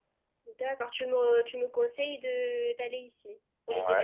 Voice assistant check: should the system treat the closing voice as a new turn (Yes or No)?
Yes